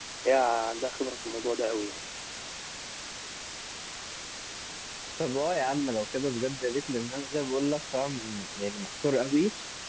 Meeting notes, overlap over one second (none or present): none